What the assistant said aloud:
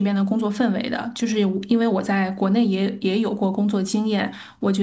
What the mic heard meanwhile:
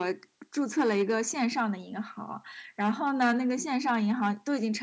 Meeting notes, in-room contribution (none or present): present